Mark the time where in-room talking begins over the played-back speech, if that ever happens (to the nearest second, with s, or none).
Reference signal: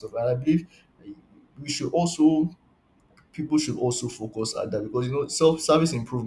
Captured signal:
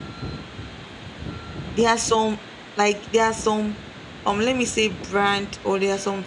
2 s